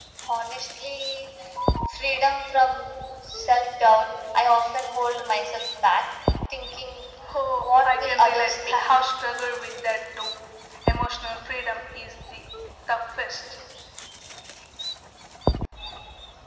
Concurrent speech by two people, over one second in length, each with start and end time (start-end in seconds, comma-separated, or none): 7.6-8.9